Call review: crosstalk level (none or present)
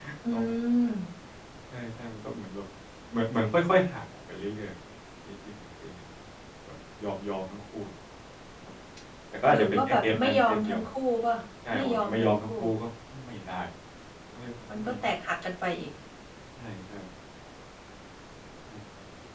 present